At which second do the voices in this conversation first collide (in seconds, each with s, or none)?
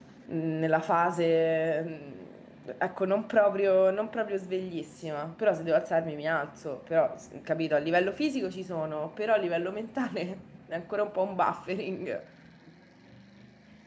none